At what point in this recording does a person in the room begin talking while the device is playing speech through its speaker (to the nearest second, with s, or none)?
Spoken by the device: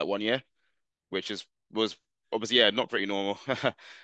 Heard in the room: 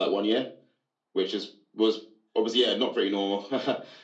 none